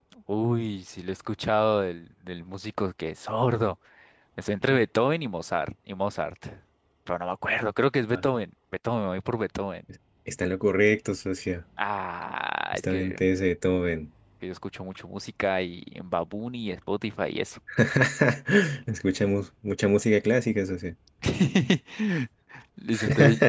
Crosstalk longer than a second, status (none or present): none